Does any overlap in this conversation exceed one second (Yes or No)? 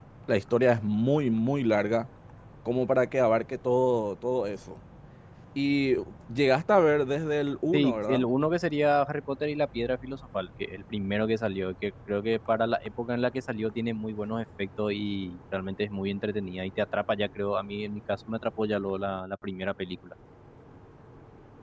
No